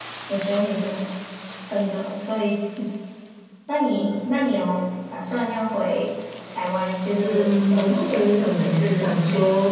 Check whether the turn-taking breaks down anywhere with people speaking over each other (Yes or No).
Yes